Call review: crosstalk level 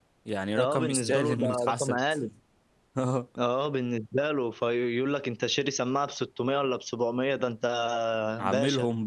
present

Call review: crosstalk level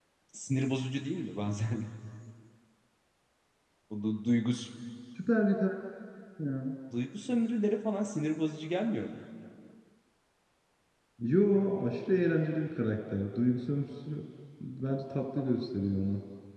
none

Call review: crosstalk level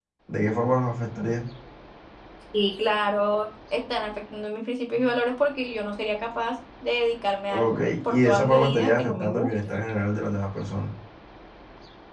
present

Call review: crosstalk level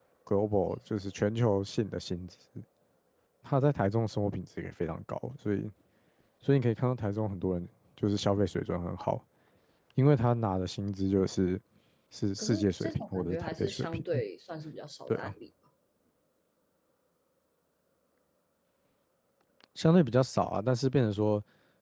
present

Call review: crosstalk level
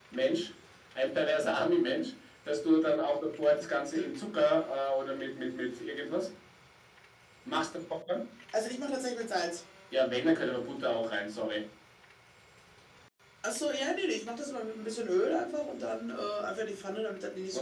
none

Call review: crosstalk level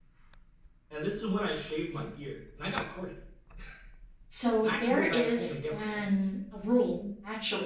present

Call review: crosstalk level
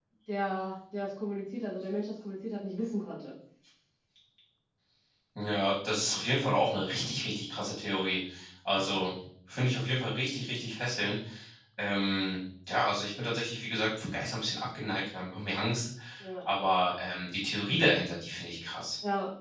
none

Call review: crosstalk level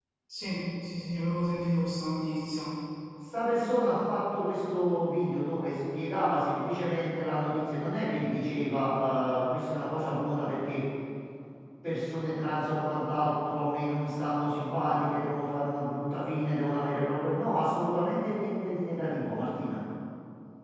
none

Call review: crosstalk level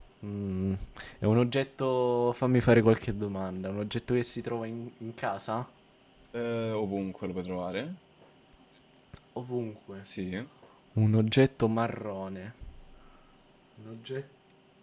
none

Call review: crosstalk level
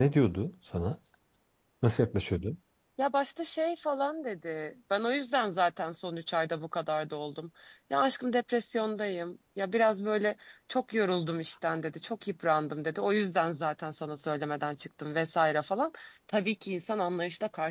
none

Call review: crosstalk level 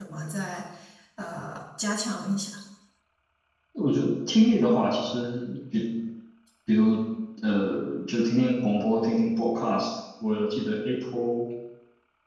none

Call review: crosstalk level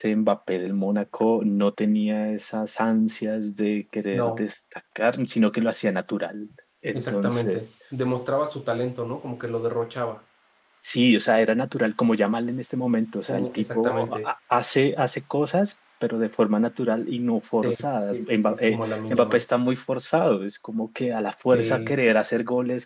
present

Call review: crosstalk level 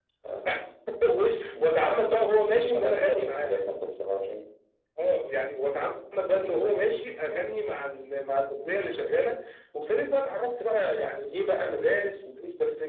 present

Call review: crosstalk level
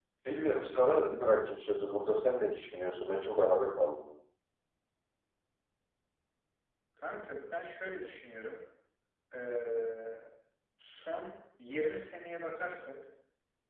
none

